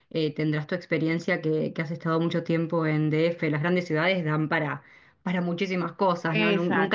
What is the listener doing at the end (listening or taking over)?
taking over